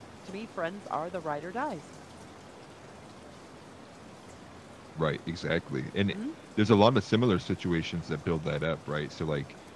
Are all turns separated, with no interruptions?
Yes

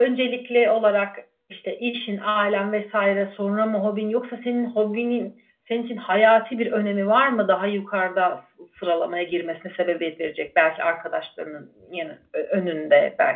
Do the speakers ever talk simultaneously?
No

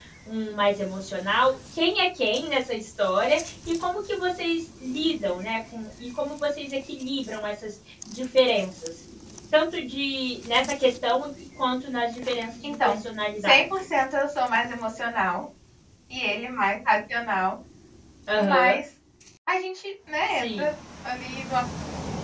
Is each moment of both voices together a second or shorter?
Yes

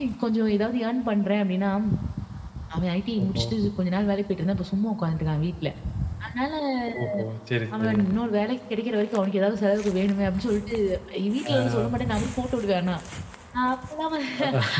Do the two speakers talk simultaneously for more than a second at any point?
No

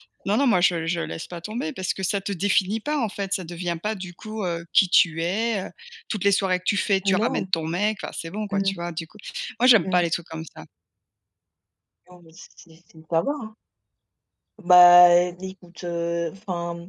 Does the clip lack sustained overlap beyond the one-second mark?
Yes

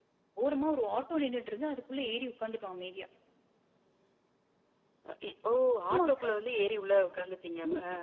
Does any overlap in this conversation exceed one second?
No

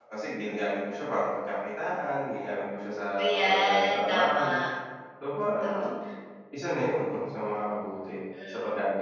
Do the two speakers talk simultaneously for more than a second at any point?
Yes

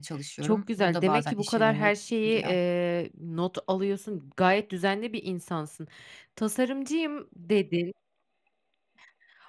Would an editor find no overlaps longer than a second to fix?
No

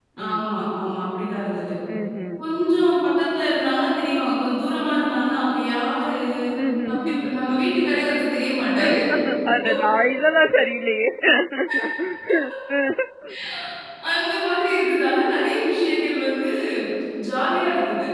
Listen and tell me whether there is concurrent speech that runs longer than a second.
No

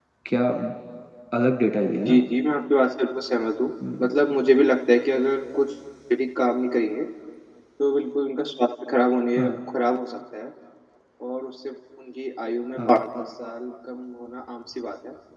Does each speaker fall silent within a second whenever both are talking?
Yes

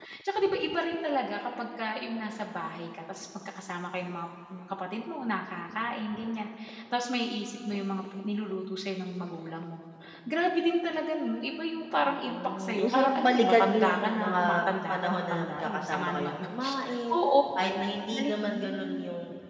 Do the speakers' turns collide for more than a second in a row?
Yes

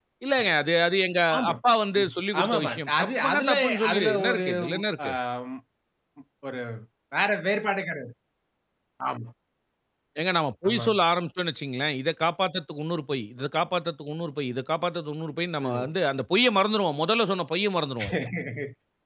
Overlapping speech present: Yes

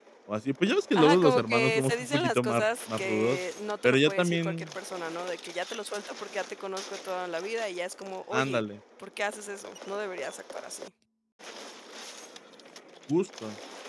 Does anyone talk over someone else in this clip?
Yes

